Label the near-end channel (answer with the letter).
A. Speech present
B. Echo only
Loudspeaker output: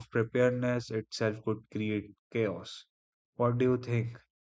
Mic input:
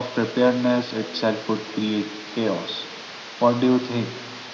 B